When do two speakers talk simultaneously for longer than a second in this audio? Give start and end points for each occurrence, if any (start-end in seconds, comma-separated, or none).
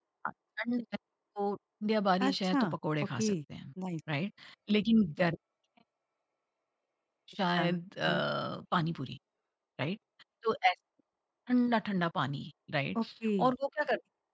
none